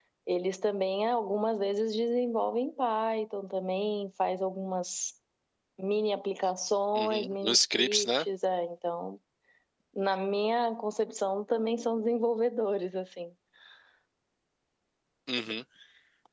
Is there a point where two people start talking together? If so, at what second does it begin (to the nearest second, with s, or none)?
7 s